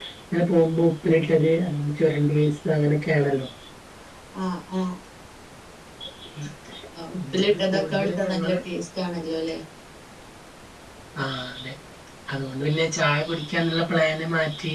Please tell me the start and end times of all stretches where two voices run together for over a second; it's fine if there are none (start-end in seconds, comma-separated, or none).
7.3-8.6